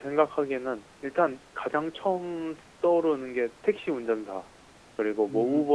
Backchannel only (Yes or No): Yes